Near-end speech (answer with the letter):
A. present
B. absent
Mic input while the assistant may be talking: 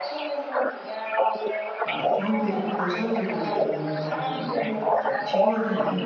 A